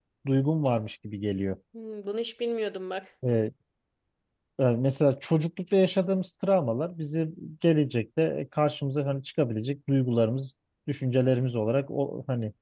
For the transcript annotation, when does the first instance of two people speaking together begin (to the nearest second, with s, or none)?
none